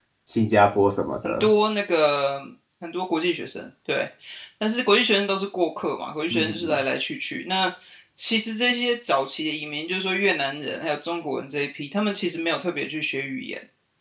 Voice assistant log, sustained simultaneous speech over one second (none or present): none